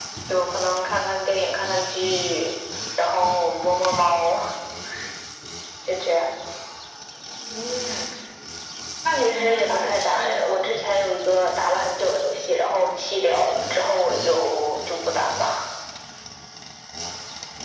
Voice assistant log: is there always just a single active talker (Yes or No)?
No